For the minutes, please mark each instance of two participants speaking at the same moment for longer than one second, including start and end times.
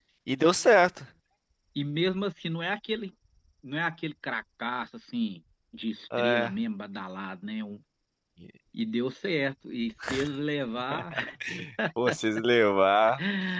none

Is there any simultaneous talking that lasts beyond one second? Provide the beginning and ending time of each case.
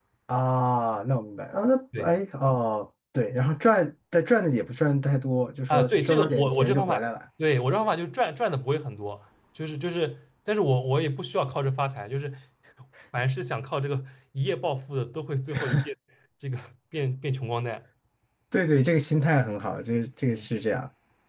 5.7-7.0

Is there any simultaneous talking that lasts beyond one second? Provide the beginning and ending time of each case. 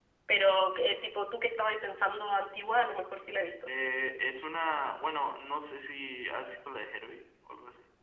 none

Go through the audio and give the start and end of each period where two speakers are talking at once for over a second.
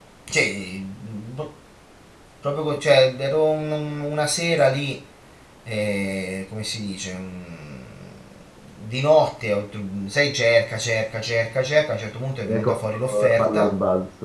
12.5-13.8

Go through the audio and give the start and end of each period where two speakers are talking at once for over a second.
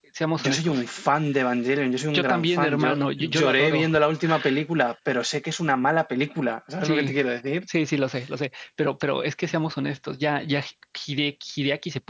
2.1-3.9

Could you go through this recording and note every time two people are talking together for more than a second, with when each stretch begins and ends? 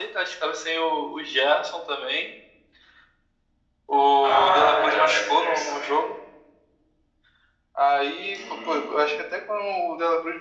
4.2-5.9

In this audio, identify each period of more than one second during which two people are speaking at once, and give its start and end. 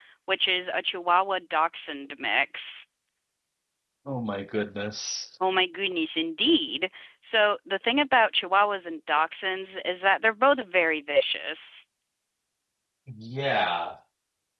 none

